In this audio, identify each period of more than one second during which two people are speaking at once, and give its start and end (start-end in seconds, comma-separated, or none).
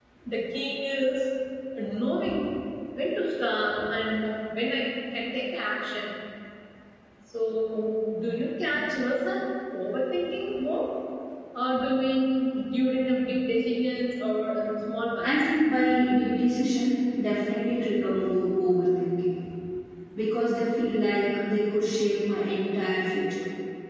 none